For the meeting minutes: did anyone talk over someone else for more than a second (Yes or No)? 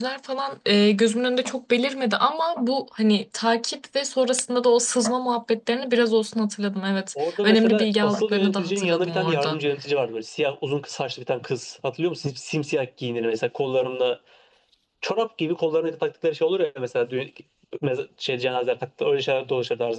Yes